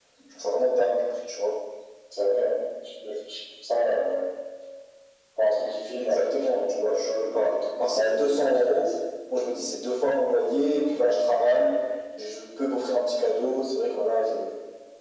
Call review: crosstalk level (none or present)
present